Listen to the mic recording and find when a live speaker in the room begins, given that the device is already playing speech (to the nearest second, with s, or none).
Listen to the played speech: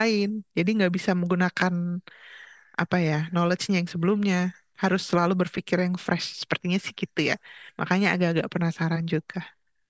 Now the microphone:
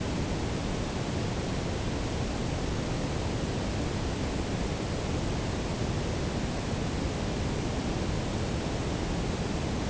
none